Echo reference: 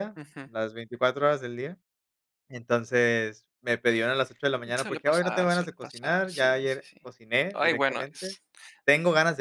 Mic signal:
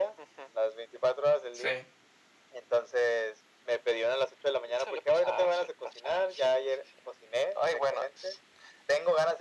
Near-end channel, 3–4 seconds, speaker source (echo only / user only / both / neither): echo only